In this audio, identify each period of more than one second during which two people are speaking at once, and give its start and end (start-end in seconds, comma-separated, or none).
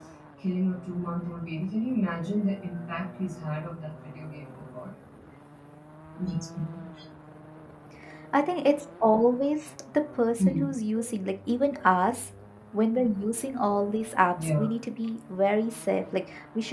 none